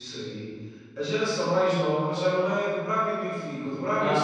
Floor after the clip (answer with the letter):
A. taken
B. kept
A